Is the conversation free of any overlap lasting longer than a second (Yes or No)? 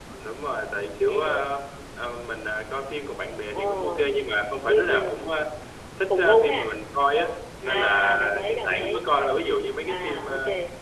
No